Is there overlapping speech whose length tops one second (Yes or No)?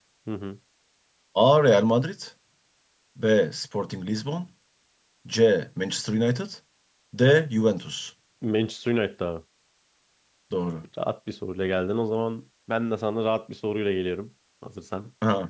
No